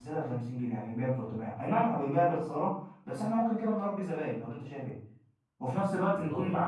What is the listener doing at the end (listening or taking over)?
listening